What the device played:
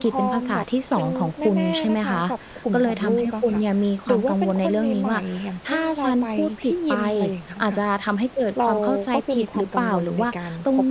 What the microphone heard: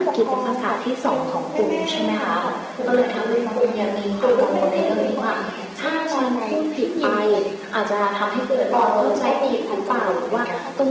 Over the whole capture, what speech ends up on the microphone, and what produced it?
both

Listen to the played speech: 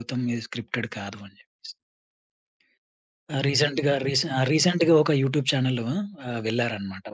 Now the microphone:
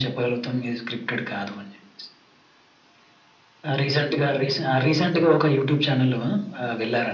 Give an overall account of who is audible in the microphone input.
echo only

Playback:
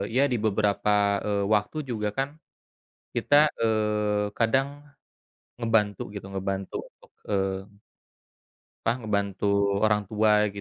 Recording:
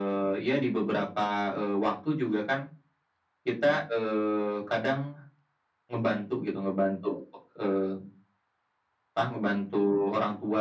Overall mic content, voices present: echo only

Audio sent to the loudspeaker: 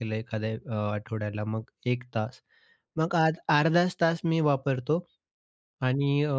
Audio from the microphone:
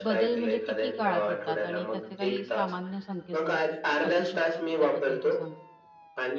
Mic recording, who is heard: both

